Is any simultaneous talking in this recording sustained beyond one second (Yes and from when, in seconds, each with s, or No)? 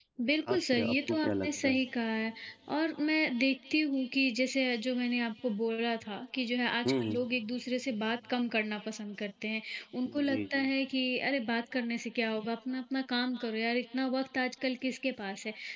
Yes, from 0.5 s